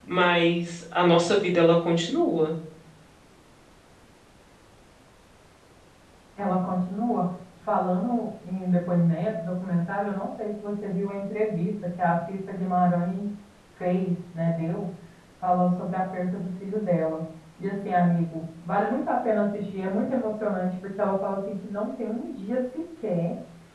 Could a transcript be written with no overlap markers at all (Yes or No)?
Yes